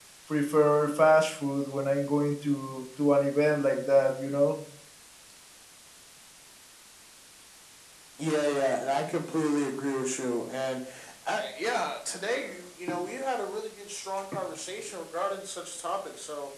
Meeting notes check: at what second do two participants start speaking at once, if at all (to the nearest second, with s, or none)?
none